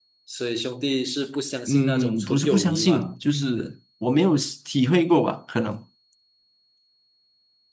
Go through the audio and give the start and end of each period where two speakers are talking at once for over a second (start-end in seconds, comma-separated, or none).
1.7-3.1